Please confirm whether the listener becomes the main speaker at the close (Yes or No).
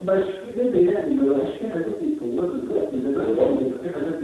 No